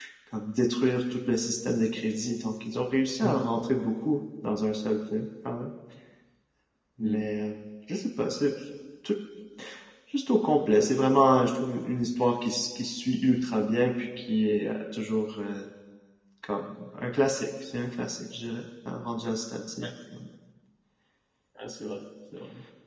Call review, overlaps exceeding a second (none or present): none